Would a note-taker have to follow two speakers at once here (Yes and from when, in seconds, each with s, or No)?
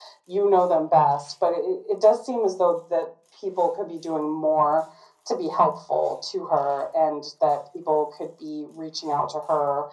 No